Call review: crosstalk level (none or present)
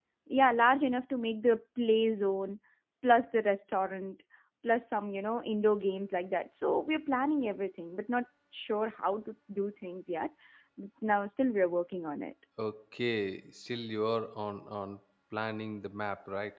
none